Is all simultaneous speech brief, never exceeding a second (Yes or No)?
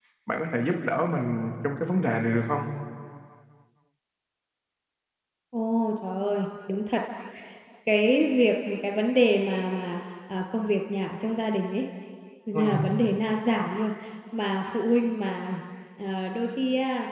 Yes